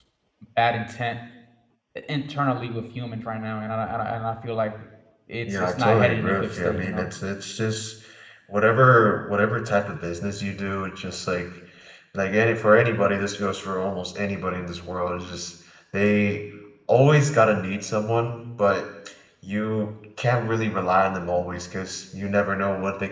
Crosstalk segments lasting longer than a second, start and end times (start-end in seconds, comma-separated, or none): 5.5-7.1